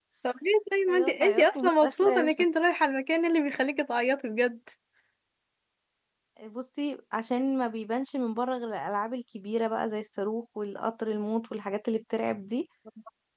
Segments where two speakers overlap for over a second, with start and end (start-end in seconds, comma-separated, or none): 0.9-2.4